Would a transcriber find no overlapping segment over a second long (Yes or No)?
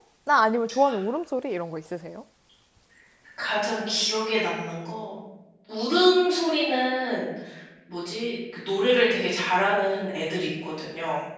Yes